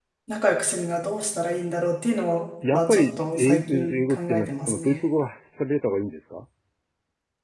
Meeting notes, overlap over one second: present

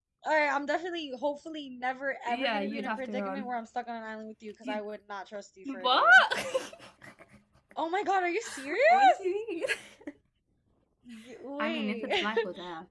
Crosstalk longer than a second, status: present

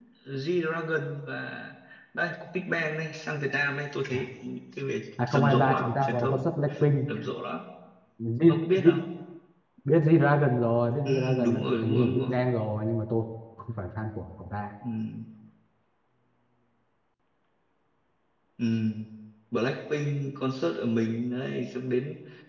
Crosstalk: present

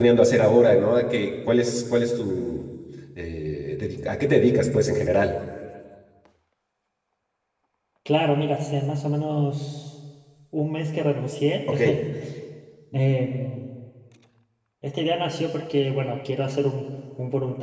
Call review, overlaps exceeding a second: none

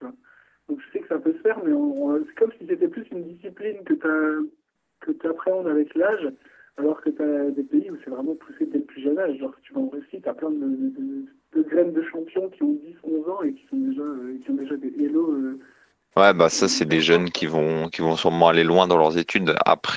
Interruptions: present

